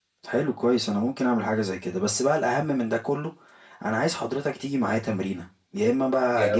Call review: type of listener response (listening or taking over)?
listening